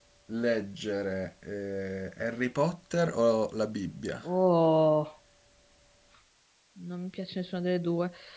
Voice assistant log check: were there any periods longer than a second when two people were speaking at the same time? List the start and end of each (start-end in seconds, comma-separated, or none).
none